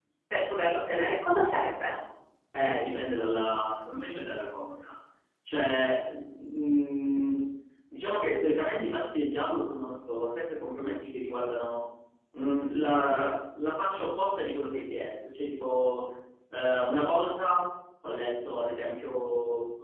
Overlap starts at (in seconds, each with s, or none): none